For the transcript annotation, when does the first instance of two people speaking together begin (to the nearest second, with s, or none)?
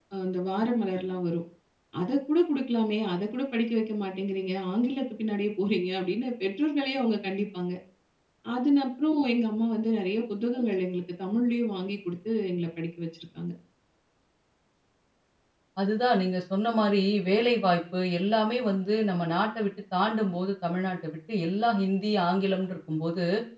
none